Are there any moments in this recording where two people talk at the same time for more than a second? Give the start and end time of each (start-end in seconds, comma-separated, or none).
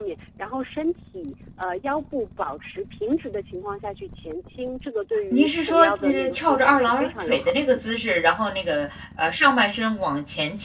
5.3-7.8